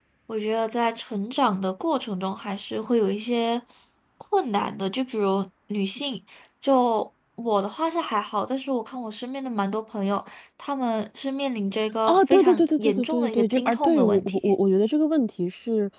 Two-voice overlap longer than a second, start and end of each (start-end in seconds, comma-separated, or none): 12.0-14.4